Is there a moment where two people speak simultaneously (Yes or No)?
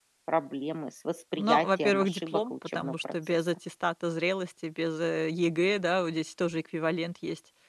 Yes